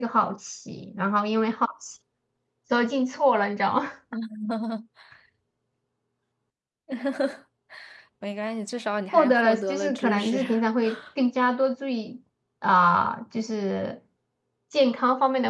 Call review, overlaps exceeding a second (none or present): present